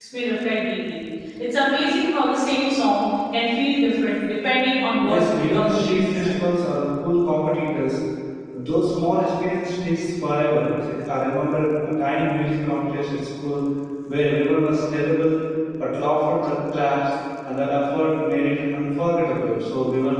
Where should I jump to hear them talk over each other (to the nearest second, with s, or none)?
5 s